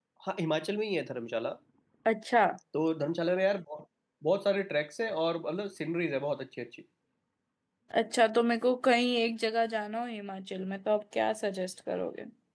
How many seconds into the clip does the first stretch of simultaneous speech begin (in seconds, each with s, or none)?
none